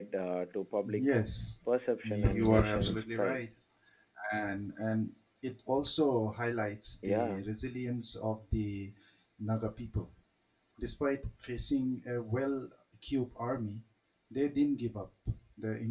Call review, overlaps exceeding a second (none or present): present